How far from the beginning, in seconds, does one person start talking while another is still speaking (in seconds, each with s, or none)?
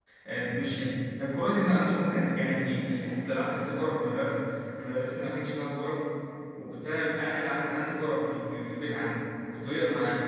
none